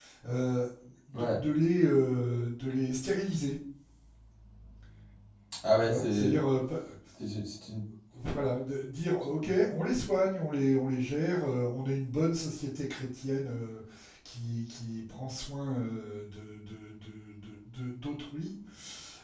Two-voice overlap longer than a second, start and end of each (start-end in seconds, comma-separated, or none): none